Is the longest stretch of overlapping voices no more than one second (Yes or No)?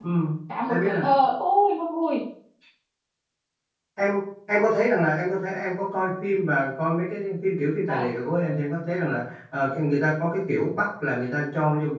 Yes